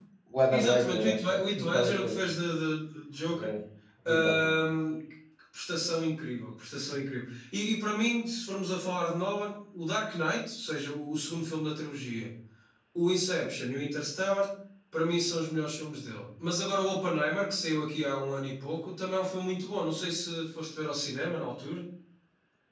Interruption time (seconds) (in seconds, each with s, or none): 0.5 s